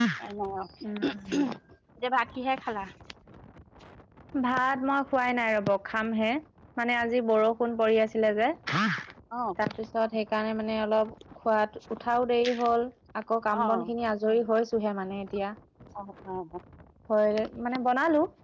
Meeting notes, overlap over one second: none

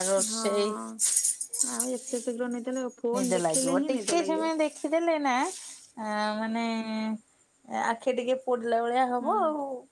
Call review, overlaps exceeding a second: present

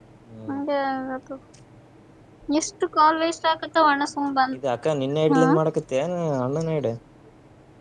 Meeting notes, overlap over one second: none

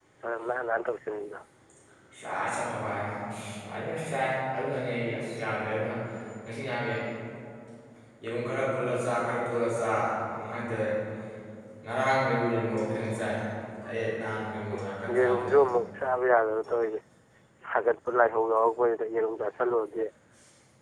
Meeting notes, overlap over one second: none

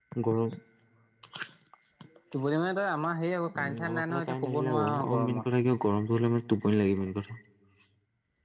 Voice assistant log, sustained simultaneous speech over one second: present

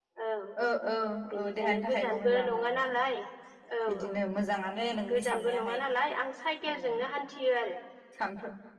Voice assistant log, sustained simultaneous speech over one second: present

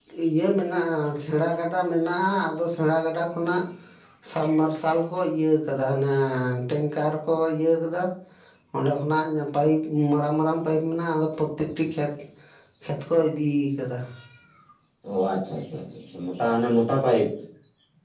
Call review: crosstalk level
none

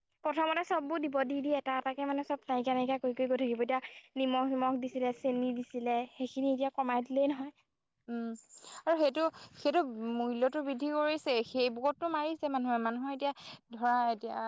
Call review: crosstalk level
none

